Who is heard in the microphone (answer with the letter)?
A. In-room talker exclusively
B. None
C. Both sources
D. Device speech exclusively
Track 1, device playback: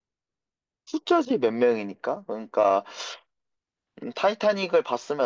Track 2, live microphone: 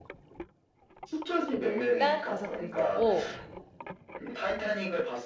C